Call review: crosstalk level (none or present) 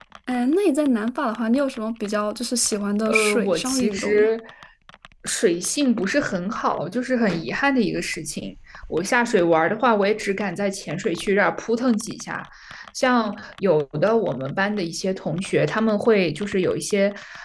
present